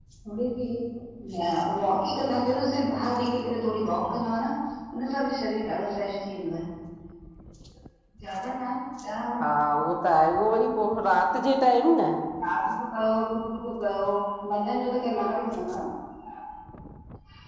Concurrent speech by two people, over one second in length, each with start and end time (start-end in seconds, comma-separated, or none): none